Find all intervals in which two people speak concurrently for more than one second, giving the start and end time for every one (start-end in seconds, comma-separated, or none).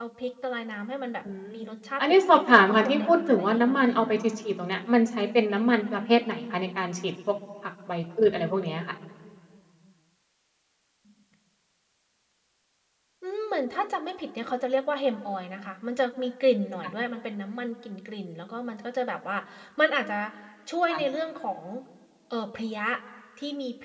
2.0-4.0